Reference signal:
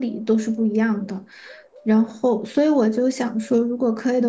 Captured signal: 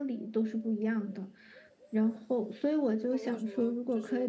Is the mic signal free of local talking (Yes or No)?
No